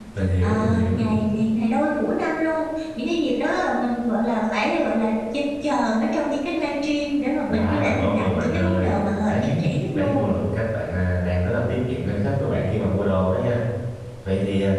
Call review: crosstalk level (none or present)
present